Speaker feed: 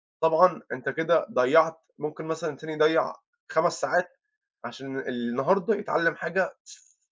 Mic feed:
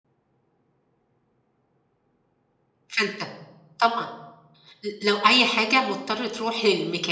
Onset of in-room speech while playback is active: 2.9 s

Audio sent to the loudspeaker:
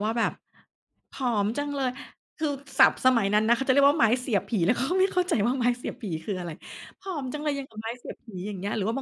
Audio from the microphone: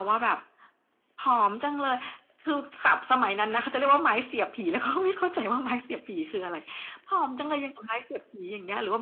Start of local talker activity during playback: none

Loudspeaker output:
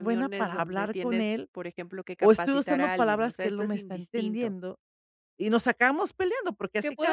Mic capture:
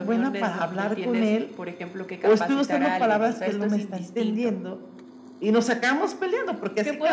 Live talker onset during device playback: none

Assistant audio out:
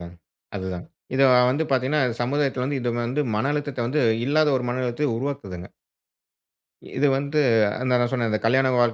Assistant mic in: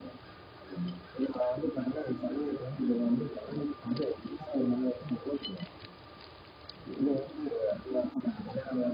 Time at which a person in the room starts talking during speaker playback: none

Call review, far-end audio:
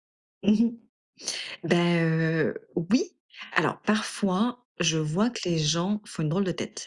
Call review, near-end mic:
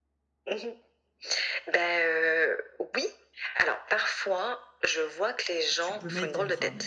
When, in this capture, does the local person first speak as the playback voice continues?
5.8 s

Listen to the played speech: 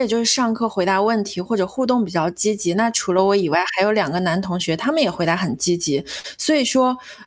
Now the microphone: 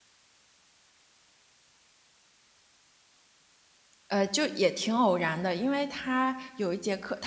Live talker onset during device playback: 4.1 s

